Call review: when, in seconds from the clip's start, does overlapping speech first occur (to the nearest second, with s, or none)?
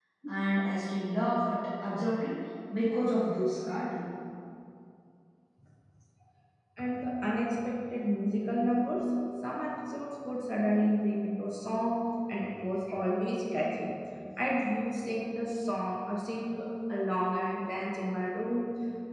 none